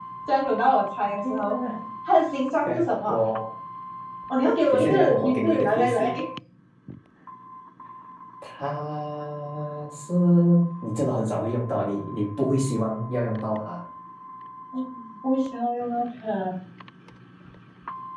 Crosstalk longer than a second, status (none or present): present